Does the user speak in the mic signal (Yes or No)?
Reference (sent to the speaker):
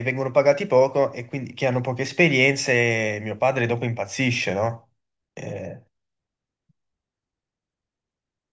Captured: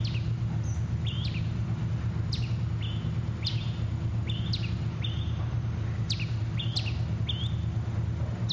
No